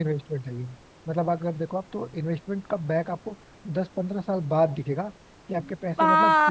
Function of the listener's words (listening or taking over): taking over